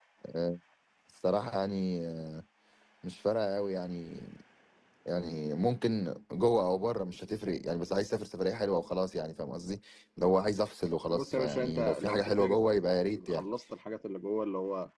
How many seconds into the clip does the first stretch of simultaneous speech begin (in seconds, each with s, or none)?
11.1 s